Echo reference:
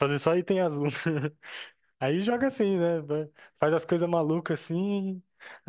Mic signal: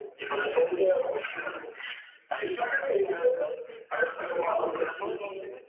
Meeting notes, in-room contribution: present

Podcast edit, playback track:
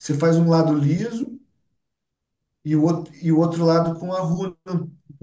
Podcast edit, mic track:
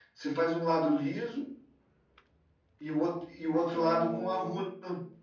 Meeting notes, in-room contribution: present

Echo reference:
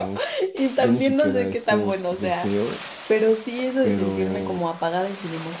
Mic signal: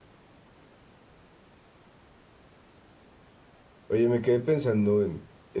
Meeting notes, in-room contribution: present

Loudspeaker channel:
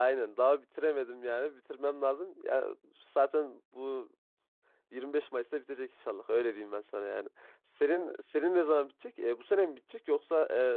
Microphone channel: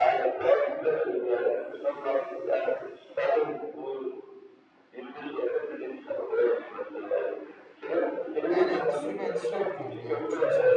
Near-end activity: present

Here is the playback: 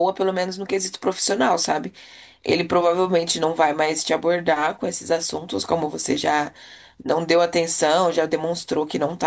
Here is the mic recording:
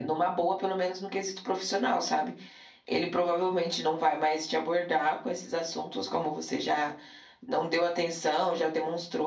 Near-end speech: none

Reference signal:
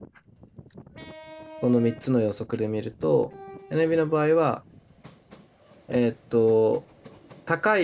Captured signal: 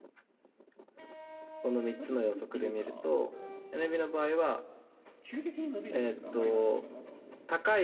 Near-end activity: present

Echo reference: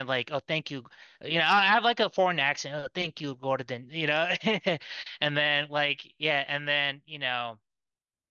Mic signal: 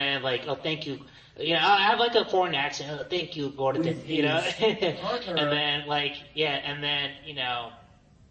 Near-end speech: present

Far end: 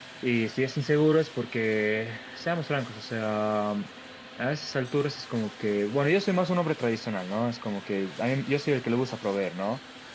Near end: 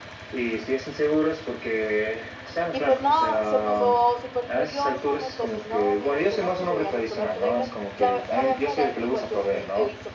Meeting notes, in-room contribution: present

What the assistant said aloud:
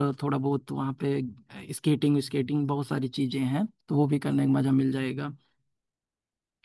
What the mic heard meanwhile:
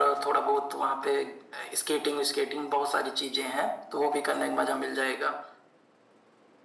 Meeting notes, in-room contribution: none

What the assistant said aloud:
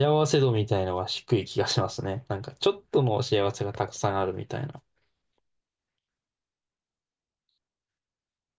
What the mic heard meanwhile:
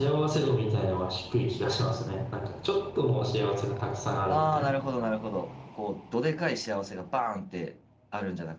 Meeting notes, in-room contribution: present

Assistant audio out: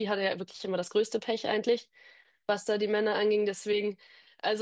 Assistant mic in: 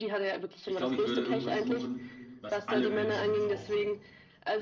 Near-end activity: present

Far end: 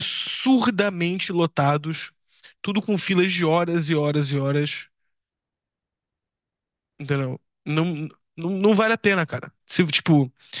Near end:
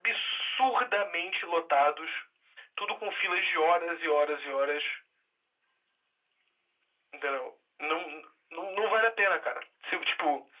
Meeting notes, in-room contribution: none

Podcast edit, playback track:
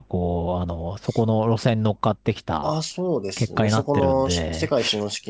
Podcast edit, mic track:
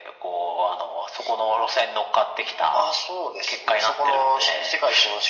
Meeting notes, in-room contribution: none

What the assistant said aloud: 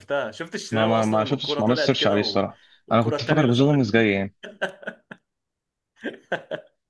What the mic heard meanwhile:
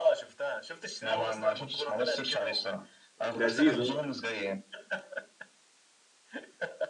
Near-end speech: present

